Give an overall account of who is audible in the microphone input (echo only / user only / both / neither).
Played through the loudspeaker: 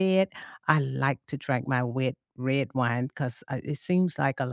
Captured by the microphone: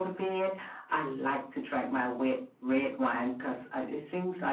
echo only